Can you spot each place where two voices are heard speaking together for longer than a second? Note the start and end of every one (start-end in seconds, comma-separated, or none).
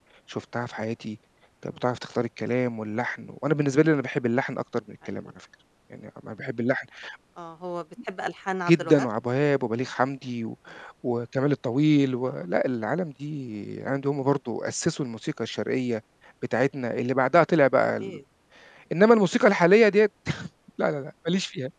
none